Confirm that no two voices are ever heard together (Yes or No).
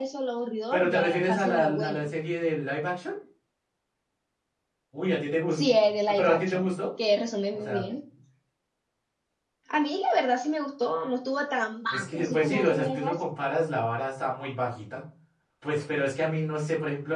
No